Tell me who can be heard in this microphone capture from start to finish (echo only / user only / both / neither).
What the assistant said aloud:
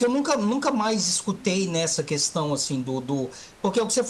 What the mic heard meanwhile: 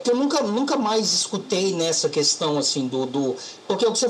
echo only